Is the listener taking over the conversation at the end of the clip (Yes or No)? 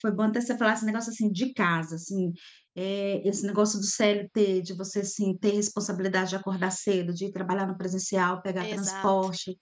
No